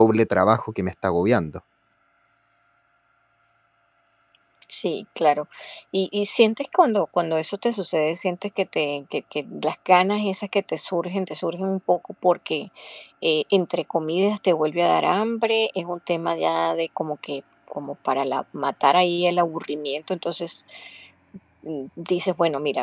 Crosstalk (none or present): none